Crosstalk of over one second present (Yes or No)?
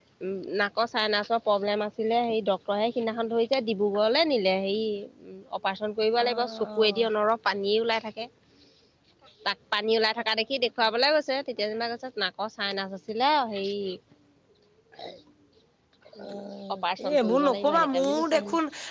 Yes